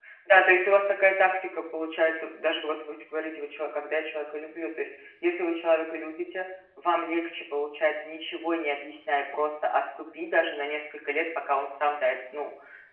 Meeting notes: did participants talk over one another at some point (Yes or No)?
No